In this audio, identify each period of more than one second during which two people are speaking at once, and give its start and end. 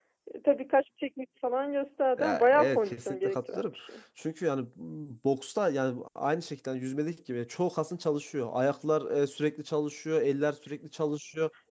2.2-3.7

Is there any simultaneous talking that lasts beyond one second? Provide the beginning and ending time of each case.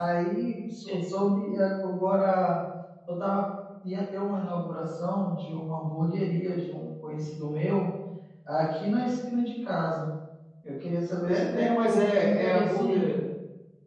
11.3-13.1

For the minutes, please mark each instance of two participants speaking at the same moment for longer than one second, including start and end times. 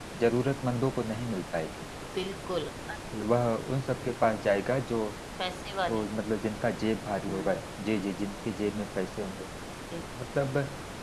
none

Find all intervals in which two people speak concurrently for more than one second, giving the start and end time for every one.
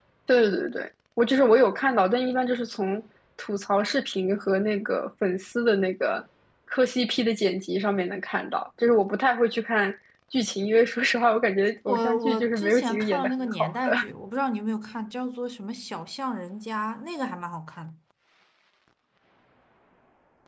11.9-14.1

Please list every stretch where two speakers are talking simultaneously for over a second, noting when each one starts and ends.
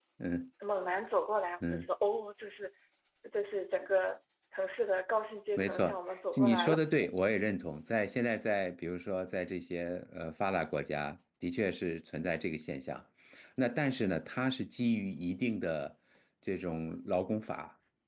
5.6-6.8

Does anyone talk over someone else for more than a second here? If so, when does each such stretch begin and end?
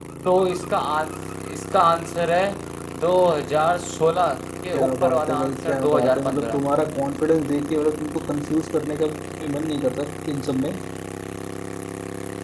4.7-6.6

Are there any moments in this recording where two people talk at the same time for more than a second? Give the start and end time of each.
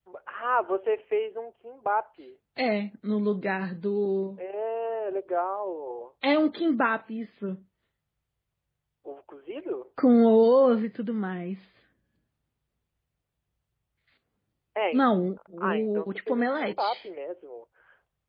15.6-17.0

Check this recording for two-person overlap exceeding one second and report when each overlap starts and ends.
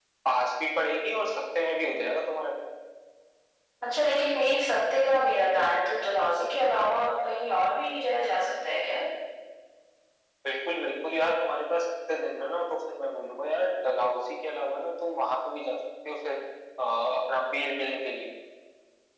none

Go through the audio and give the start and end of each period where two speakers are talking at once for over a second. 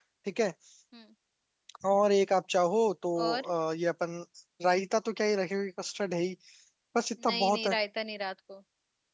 none

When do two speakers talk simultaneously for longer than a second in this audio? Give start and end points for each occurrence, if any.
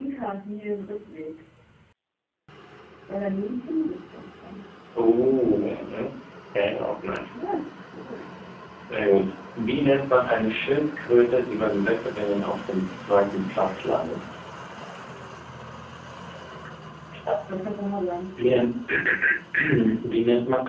none

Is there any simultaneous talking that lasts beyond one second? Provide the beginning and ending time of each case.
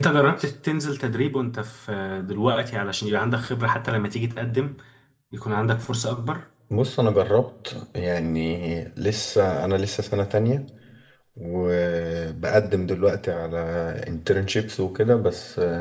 none

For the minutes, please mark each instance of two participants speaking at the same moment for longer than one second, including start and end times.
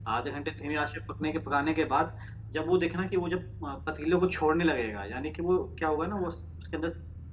none

